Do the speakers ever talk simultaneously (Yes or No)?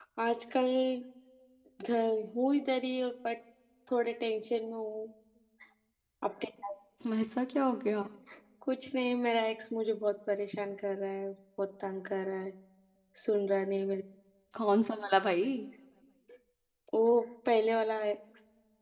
No